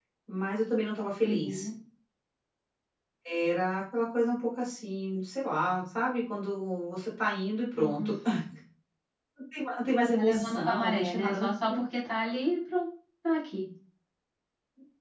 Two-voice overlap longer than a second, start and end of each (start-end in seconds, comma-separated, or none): 10.1-11.8